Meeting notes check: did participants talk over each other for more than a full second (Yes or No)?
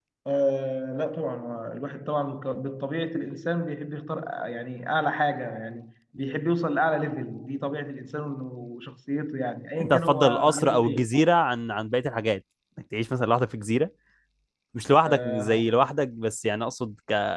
Yes